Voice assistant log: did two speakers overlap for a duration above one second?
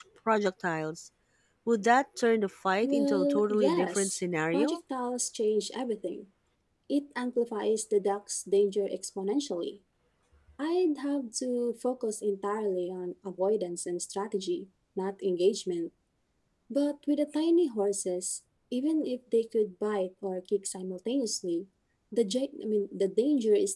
Yes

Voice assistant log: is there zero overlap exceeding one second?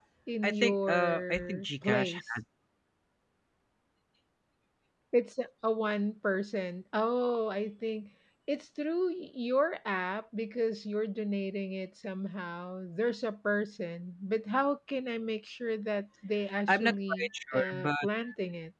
No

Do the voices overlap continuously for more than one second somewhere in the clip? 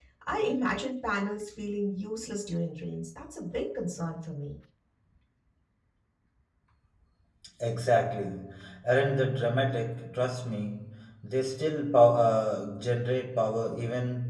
No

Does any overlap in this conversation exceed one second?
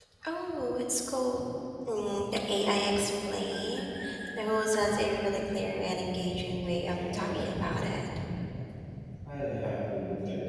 Yes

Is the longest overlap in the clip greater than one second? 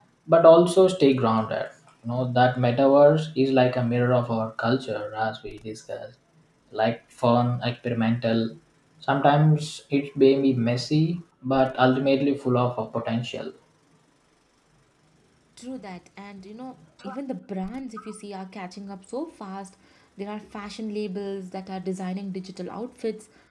No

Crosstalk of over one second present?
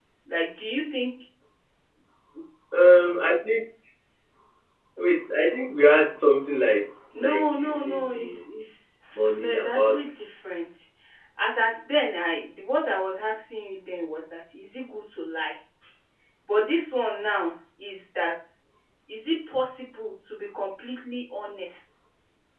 Yes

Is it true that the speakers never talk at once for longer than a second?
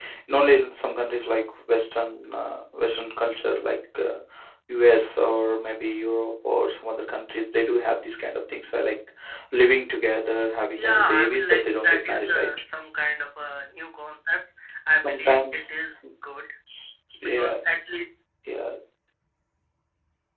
No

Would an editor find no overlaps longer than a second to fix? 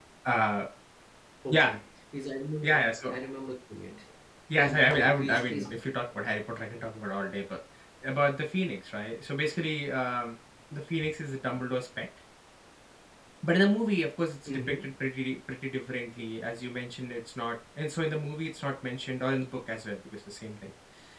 No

